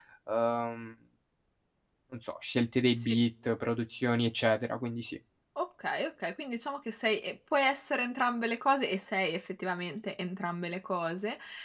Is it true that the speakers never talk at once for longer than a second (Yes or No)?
Yes